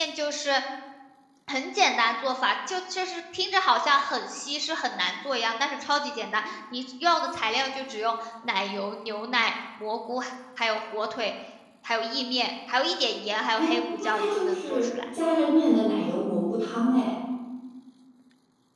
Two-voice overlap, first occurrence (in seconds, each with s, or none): 13.6 s